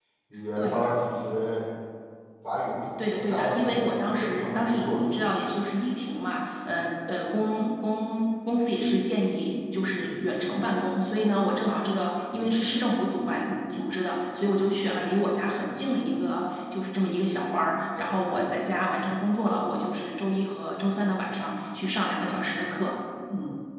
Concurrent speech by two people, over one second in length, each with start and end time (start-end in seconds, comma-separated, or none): 3.0-5.3